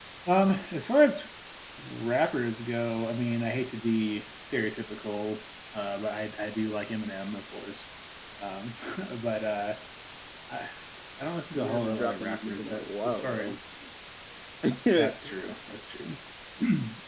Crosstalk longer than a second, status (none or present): present